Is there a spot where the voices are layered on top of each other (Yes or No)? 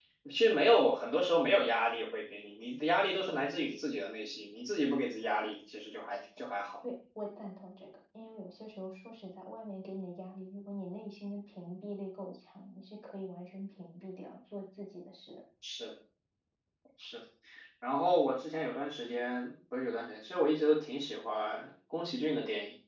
No